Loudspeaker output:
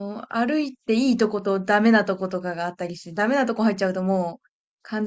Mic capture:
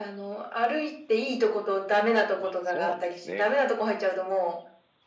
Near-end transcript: あ、そうなんですね。

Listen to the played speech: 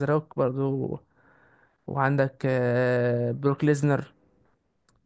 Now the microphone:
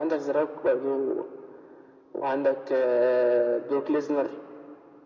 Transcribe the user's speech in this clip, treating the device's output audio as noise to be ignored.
none

